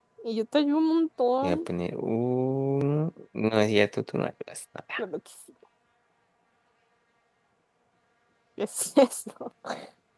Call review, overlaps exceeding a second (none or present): none